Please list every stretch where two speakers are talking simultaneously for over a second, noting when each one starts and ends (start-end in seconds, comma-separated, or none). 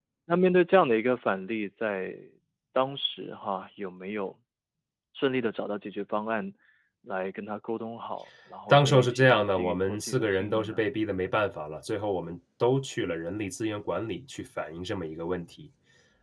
8.7-10.8